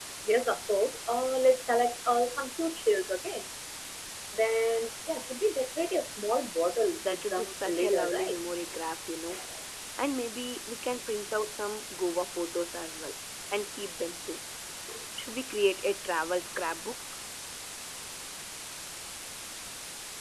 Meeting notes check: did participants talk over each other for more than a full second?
Yes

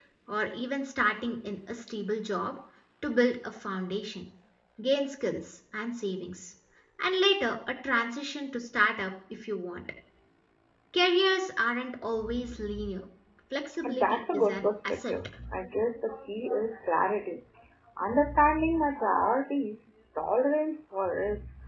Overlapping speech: Yes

